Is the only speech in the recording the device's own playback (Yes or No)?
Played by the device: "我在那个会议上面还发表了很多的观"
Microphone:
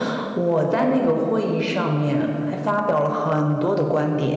Yes